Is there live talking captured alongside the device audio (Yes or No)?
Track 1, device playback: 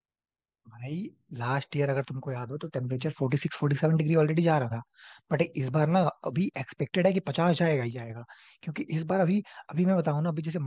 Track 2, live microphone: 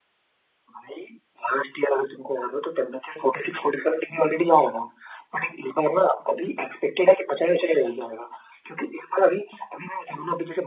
No